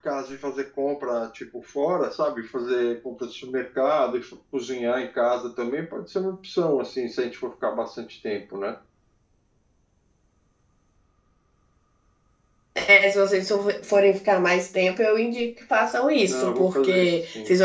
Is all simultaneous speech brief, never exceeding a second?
No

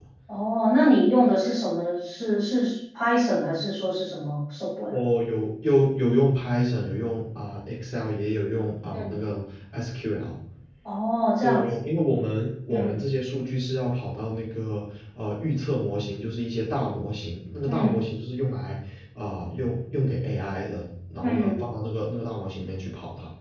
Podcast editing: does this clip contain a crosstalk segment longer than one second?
No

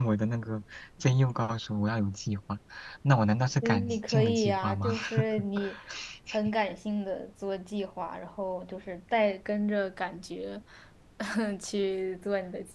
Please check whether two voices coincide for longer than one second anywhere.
Yes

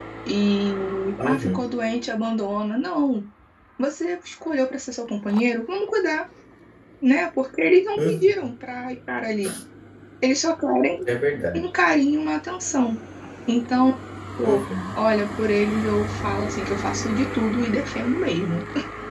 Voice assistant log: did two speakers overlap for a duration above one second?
No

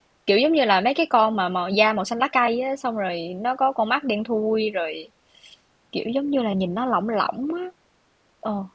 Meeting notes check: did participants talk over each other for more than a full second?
No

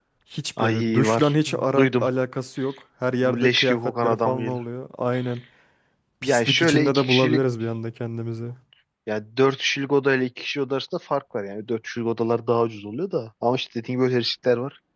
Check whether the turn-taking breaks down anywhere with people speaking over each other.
Yes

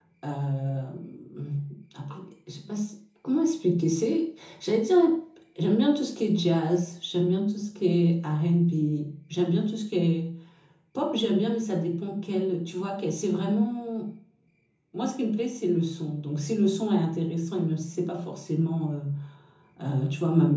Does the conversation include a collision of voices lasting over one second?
No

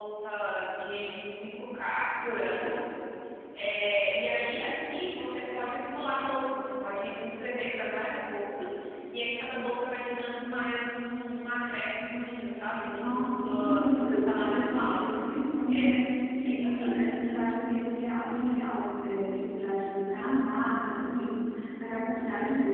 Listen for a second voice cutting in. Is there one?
Yes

